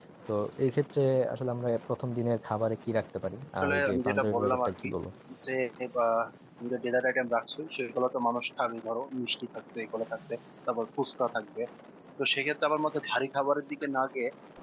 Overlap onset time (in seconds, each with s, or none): 3.6 s